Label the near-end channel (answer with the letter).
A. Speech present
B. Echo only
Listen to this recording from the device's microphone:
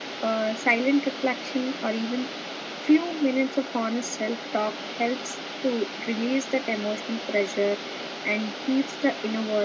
B